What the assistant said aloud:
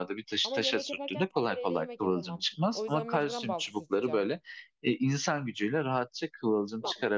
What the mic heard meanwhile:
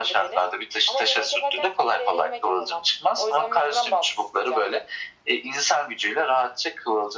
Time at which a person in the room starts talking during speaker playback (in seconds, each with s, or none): none